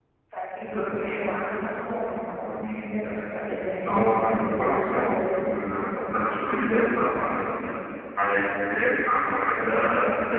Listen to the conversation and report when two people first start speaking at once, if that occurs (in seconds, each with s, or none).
3.9 s